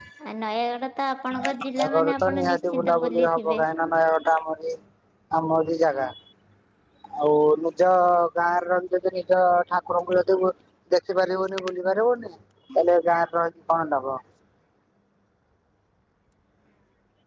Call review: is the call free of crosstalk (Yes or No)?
No